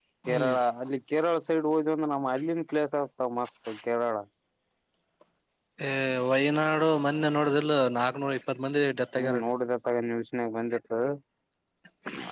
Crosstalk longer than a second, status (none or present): none